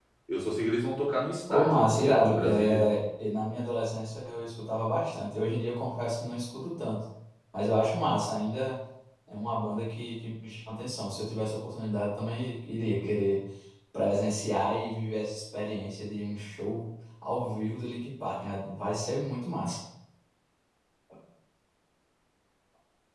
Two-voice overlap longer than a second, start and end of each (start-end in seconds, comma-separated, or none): 1.5-2.9